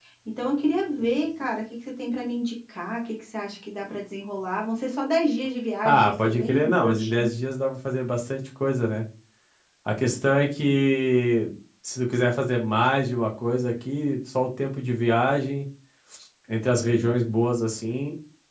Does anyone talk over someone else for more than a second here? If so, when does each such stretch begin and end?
5.8-7.3

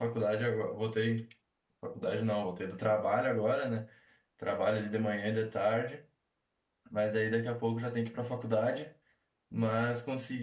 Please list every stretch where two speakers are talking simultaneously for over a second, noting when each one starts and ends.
none

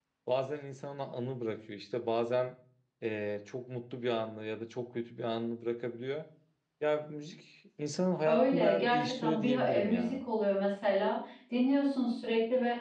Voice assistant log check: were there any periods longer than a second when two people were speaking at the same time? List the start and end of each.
8.2-10.2

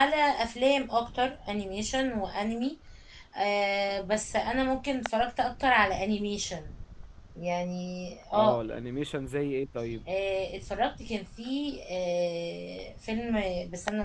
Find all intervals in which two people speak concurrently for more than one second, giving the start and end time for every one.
none

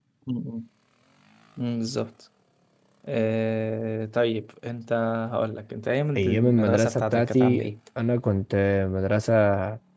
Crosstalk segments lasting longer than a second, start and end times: 6.2-7.7

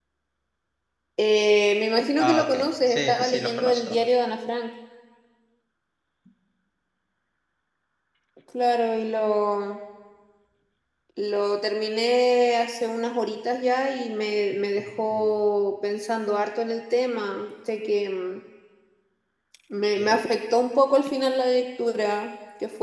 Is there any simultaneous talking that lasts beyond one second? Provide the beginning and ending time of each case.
2.2-4.0

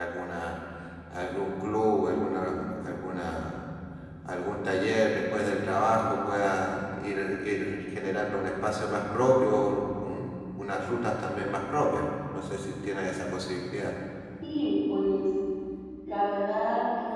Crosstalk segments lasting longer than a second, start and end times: none

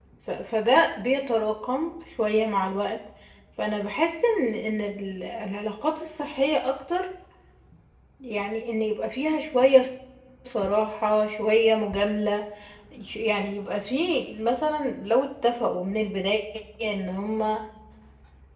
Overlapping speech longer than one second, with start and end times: none

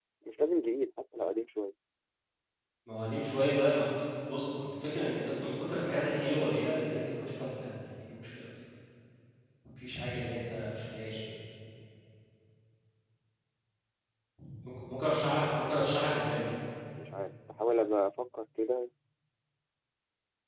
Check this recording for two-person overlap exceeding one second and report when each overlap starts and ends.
none

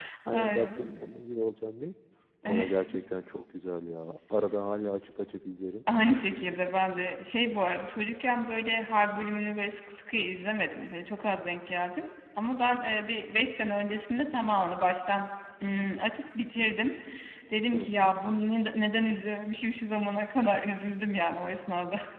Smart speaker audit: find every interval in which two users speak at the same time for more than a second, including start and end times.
none

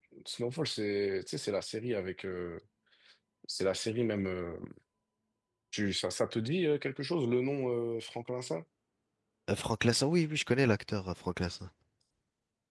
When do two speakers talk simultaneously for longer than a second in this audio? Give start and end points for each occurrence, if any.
none

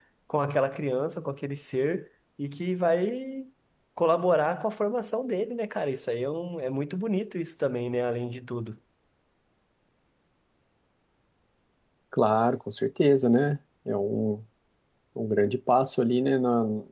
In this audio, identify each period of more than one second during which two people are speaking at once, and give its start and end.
none

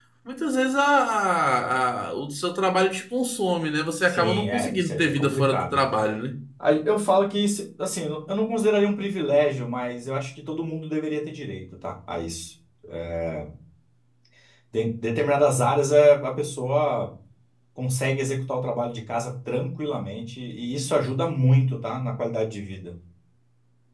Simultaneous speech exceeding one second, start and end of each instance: 4.0-5.8

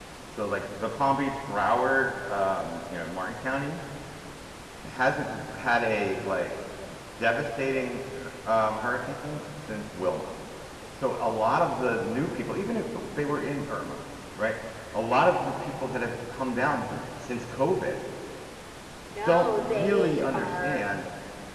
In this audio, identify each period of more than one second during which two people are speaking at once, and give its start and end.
19.2-20.8

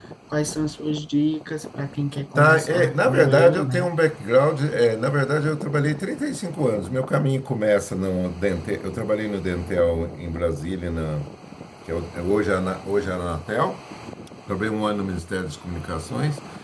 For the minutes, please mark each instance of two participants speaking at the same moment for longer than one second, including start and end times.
2.4-3.9

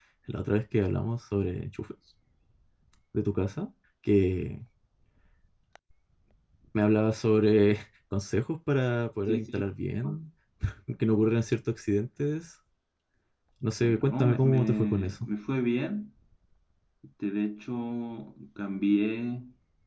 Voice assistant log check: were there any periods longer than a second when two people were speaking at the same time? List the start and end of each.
13.8-15.3

